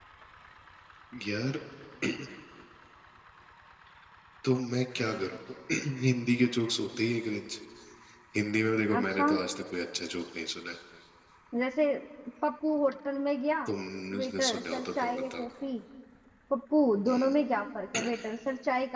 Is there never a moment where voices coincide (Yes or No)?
No